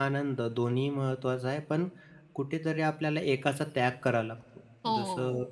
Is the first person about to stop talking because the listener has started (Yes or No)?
No